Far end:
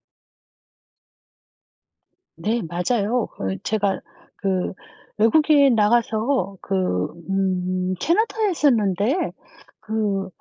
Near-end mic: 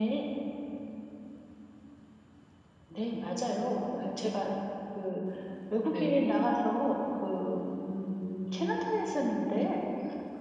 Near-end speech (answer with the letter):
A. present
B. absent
A